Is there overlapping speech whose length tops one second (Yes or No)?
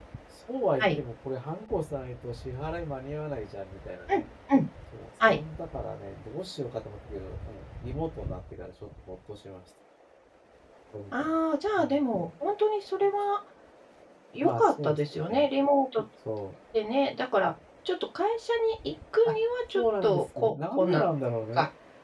Yes